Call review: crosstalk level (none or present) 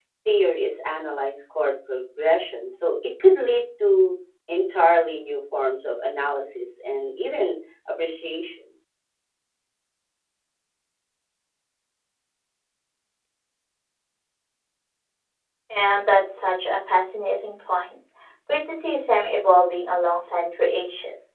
none